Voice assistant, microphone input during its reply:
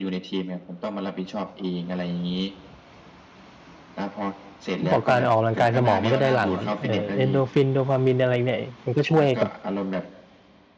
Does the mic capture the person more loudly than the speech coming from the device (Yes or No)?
Yes